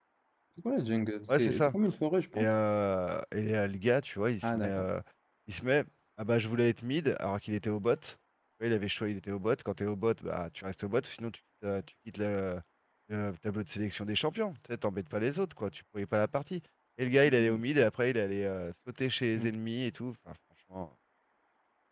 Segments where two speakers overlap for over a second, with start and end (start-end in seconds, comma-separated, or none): none